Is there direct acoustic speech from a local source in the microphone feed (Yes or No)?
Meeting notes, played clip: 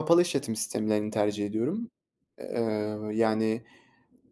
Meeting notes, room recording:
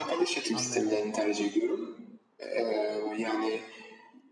Yes